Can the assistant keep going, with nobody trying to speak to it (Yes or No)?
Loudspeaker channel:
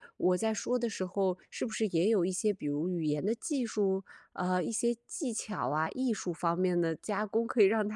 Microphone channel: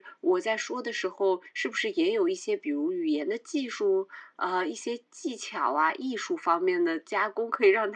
Yes